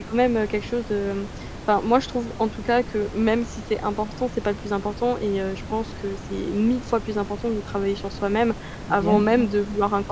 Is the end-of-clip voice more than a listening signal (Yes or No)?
No